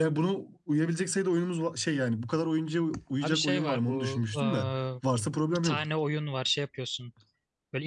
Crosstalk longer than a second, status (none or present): present